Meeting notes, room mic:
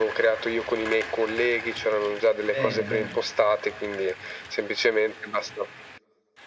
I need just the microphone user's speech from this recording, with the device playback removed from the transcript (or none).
Bene, bene.